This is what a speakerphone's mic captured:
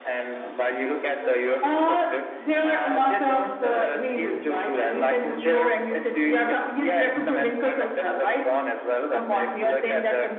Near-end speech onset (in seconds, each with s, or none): 7.2 s